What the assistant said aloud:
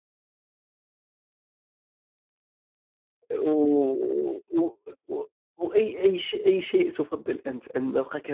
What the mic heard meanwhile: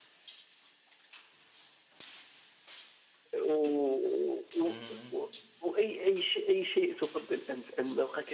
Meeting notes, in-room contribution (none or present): present